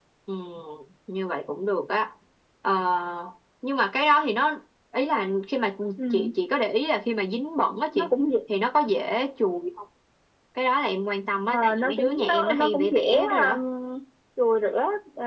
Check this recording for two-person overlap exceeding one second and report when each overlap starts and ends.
11.5-13.6

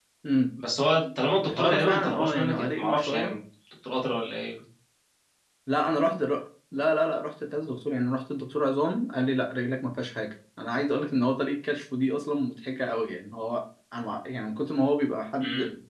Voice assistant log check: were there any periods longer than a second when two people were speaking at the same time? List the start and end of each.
1.4-3.4

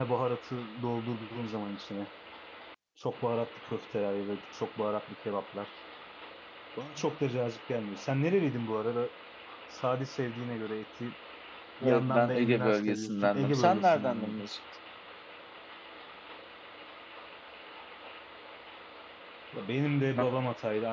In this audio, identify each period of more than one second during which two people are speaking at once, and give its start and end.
11.8-14.4

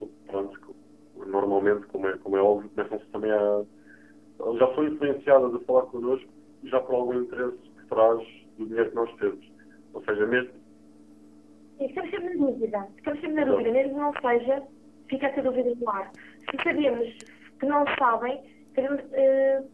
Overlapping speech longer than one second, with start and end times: none

